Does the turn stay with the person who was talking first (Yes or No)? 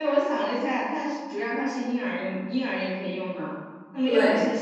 Yes